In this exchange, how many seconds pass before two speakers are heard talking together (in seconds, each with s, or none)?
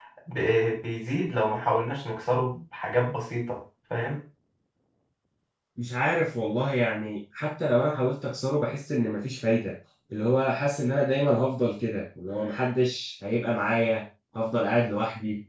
none